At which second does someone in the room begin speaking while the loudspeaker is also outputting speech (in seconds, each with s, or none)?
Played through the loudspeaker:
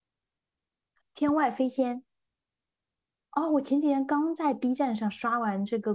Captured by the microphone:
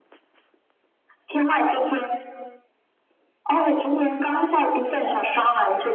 none